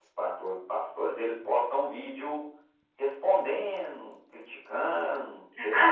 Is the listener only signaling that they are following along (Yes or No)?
No